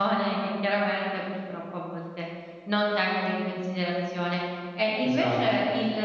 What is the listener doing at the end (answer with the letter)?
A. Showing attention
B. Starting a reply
A